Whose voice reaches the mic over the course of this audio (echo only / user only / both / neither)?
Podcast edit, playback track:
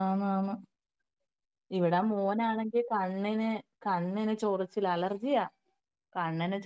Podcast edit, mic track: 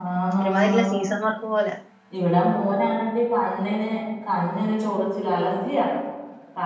both